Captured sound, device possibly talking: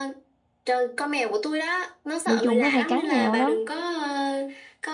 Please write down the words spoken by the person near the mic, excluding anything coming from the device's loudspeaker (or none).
nuôi chung nó hay cắn nhau lắm.